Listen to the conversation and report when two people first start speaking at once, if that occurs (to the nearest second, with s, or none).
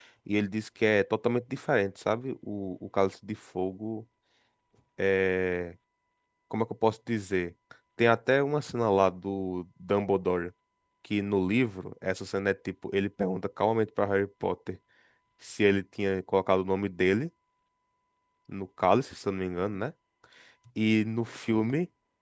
none